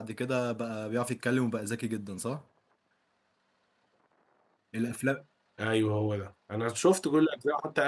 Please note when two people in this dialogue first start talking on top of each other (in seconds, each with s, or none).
none